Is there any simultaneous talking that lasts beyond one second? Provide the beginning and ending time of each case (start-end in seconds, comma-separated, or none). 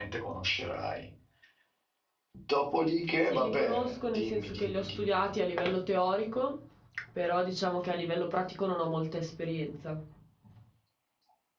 3.2-5.3